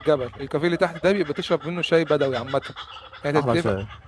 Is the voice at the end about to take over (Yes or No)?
No